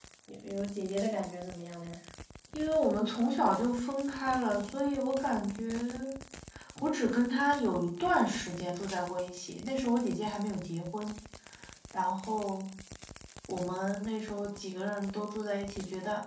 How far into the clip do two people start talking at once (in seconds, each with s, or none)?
none